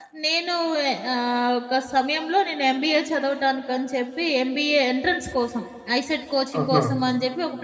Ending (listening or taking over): listening